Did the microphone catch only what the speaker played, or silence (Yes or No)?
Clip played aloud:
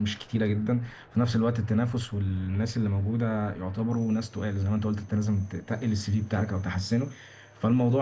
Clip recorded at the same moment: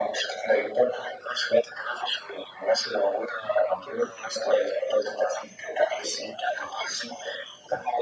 Yes